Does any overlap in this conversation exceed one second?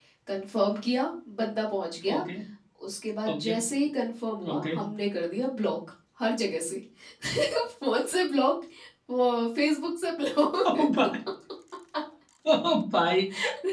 No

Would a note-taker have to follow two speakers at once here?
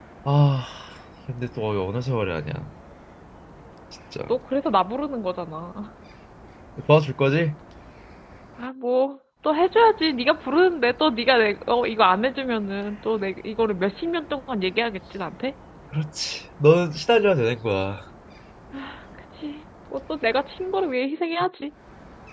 No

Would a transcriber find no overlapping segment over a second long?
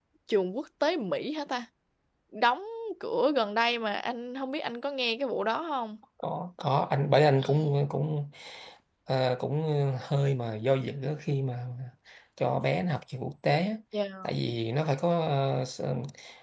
Yes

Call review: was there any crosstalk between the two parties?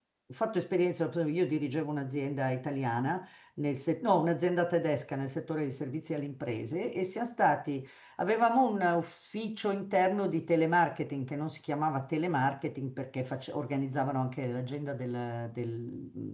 No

